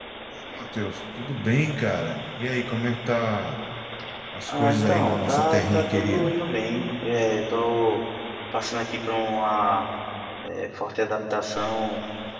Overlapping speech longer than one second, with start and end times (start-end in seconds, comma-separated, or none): 4.5-6.3